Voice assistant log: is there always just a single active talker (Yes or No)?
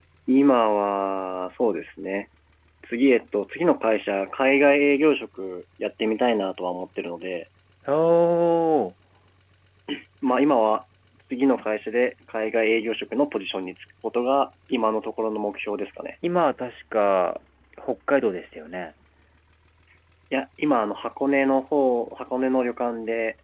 Yes